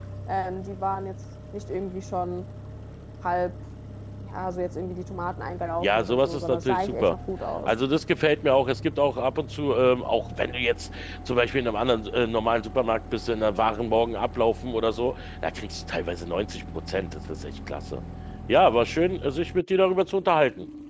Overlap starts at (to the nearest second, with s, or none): 6 s